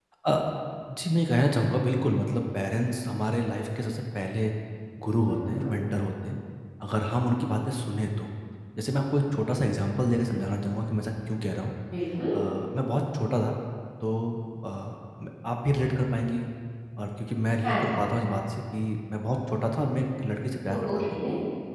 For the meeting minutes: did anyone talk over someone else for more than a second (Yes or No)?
No